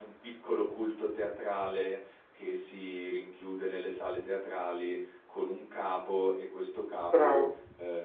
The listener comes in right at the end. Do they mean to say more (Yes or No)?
No